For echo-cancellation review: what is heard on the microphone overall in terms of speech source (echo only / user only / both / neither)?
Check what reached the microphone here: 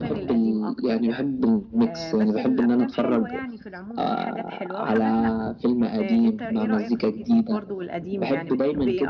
both